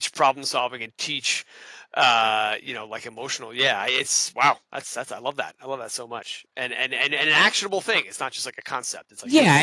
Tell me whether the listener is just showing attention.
No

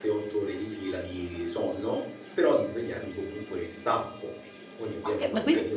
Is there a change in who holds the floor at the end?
Yes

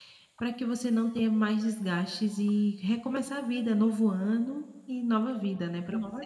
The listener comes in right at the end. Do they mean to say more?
Yes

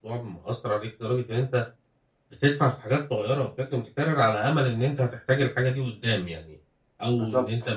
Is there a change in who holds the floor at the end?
No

